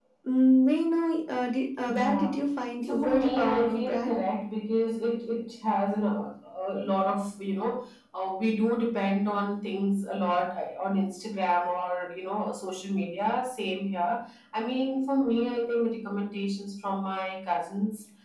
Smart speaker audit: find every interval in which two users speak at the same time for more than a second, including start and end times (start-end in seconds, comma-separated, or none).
2.9-4.1